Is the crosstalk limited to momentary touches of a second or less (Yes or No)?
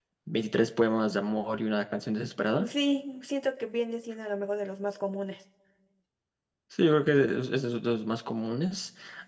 Yes